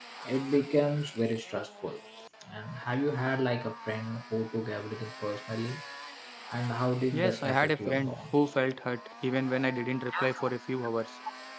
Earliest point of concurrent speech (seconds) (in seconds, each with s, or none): 7.1 s